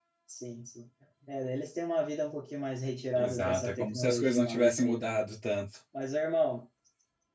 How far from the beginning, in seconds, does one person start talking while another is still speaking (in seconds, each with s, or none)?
3.1 s